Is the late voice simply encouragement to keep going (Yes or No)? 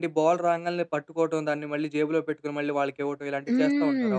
No